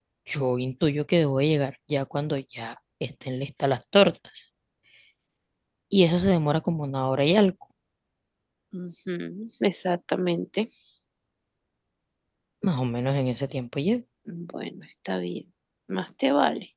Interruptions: none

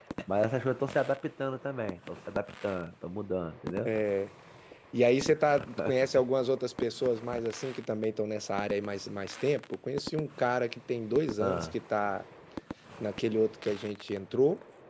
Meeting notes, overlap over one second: none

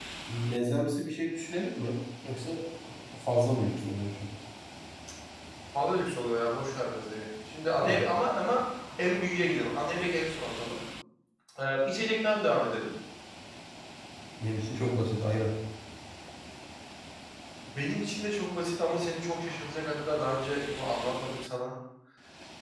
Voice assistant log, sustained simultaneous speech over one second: none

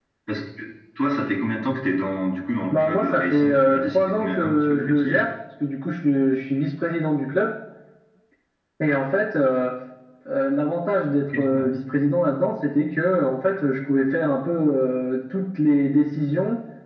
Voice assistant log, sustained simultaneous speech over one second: present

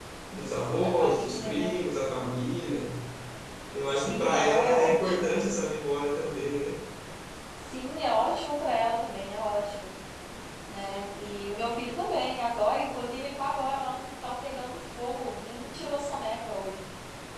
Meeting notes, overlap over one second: present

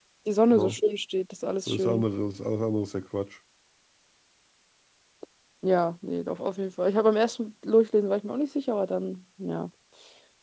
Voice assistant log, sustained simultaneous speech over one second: none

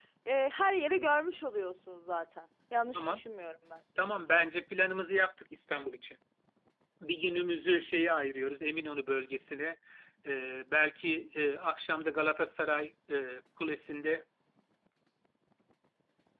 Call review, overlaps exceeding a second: none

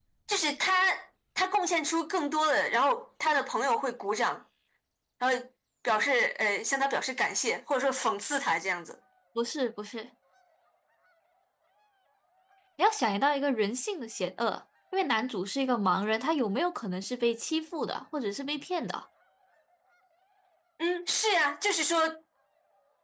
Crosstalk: none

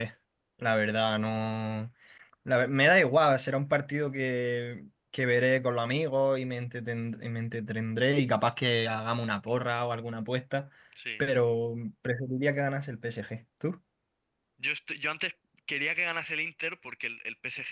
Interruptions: none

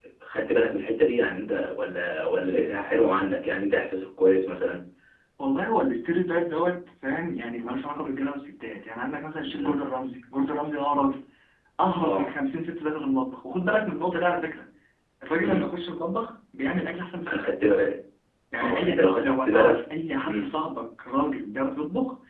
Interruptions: present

